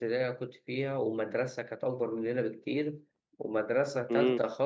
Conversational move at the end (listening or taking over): listening